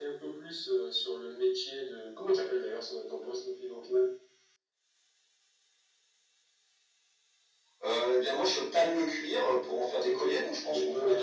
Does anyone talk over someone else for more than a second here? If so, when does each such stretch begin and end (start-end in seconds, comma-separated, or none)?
none